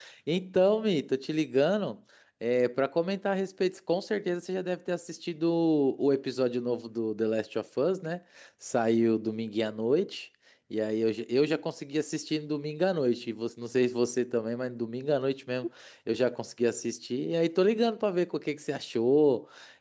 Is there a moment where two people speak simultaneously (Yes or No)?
No